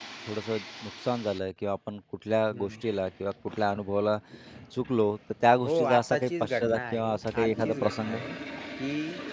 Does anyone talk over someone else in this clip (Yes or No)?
Yes